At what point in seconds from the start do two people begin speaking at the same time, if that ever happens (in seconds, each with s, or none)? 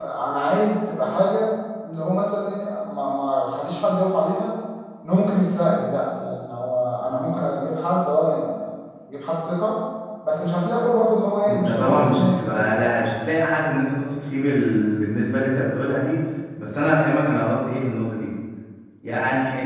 11.5 s